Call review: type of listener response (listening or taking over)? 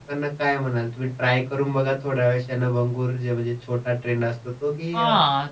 taking over